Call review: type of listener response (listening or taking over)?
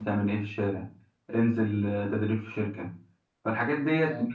listening